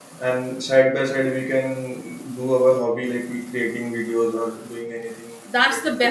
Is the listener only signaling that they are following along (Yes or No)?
No